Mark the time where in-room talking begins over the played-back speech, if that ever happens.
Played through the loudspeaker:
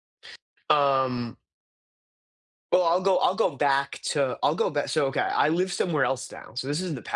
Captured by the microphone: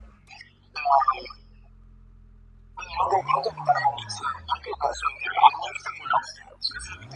none

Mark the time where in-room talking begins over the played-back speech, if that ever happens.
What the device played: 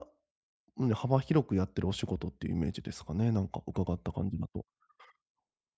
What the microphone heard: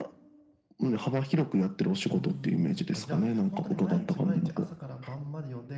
2.1 s

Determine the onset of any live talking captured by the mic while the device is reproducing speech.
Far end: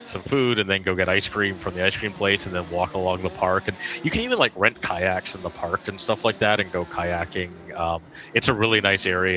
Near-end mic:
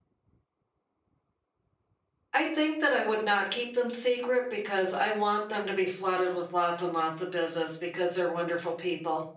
2.3 s

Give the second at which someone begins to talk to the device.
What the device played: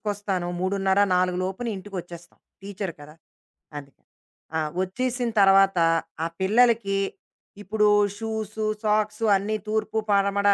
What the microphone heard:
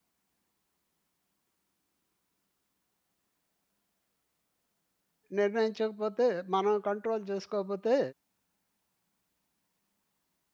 5.4 s

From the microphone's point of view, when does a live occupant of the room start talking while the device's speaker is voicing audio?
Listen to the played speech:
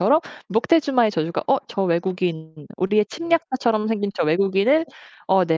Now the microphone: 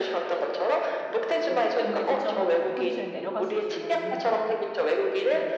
1.5 s

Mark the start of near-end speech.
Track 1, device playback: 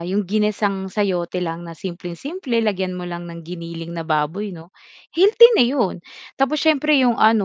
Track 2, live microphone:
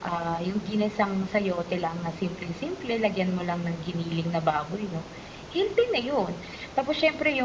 none

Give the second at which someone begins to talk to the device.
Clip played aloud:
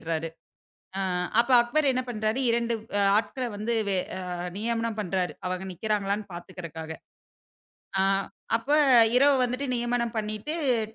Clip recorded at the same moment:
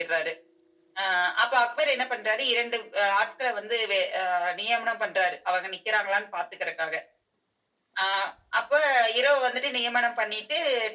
none

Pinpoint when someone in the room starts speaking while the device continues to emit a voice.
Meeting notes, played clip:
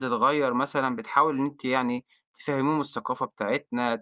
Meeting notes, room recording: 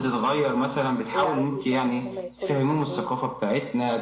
1.1 s

